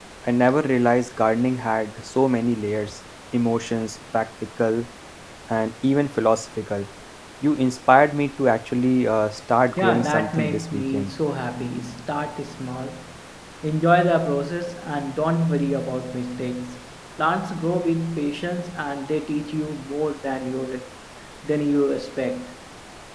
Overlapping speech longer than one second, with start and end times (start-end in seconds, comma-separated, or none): 9.8-11.1